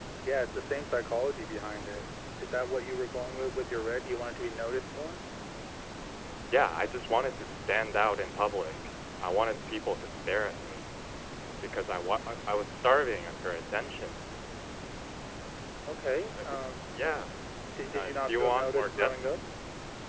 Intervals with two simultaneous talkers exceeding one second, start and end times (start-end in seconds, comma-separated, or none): 17.9-19.2